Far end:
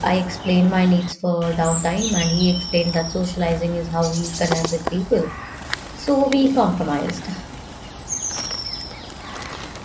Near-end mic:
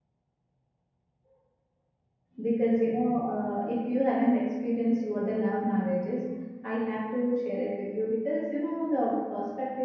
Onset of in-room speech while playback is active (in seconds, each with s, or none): 2.4 s